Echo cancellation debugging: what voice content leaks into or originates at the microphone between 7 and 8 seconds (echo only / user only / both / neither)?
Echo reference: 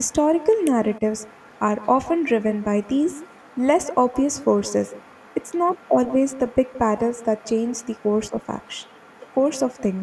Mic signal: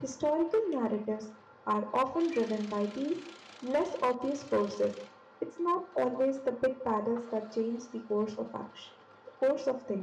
echo only